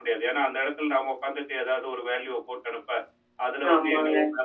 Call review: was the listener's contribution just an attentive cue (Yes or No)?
Yes